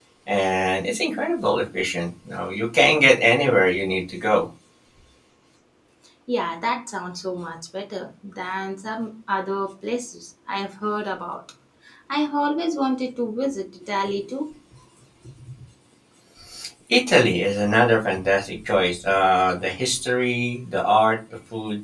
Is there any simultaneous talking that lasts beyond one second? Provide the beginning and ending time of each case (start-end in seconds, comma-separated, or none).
none